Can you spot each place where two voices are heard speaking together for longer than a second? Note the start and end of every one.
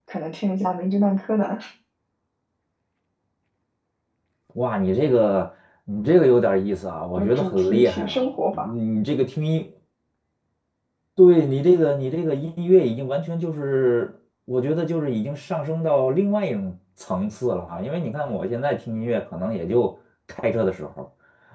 7.2-8.7

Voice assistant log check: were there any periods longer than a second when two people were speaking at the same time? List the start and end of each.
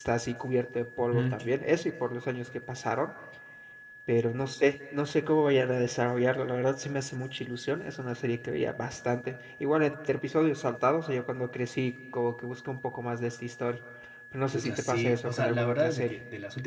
14.5-16.1

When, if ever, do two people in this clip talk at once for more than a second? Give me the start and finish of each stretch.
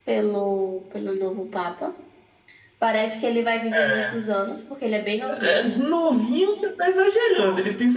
none

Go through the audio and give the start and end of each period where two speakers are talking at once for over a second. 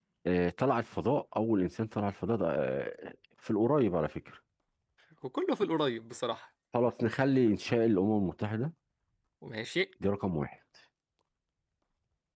none

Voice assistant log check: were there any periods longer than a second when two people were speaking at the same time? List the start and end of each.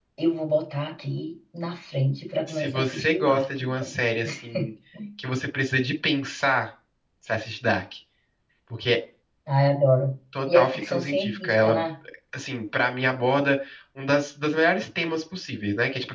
2.5-3.9, 10.5-11.8

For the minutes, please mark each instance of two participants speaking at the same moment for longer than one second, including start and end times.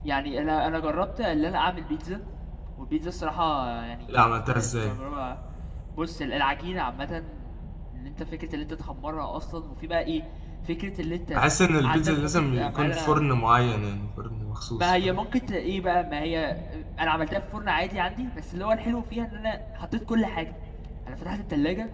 11.8-13.3

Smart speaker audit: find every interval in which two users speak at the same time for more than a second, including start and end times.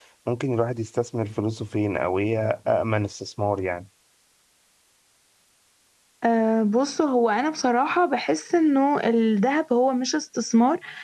none

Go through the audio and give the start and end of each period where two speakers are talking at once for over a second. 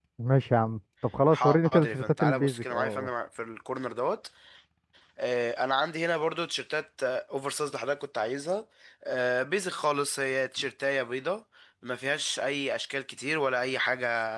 1.3-3.1

